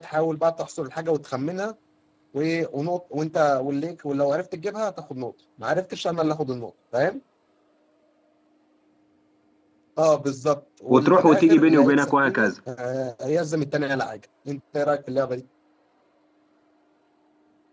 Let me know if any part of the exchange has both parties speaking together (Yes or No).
Yes